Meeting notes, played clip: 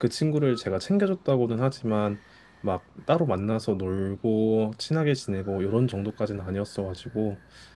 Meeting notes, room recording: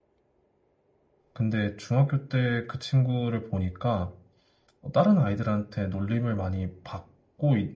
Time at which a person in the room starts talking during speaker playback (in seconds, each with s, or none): 1.3 s